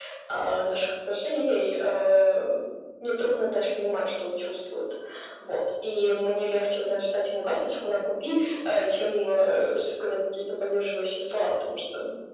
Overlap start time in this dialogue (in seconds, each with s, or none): none